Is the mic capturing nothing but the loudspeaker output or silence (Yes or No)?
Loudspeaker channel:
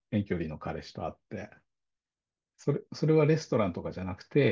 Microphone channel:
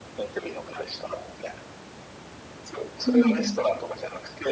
No